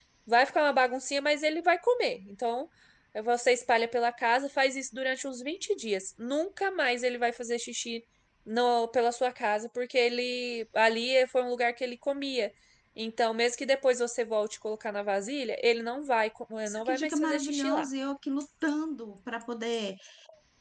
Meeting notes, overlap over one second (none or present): present